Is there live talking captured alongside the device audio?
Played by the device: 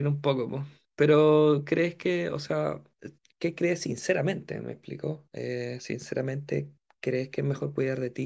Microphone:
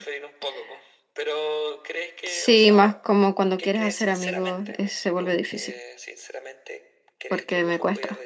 Yes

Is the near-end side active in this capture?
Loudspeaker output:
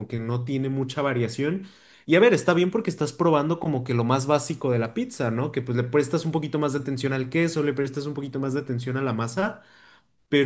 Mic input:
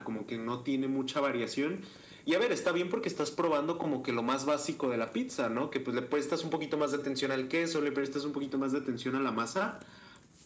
No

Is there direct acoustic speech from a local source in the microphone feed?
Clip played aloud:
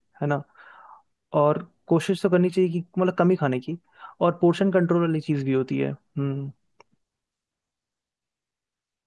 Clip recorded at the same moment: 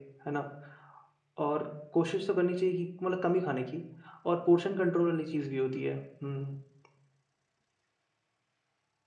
No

